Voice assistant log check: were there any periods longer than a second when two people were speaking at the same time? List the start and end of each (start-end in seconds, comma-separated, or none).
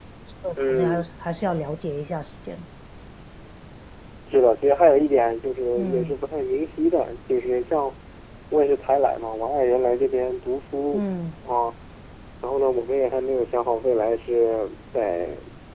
none